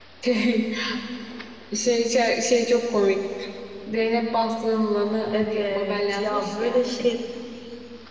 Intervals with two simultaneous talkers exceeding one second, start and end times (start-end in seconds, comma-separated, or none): 5.3-6.8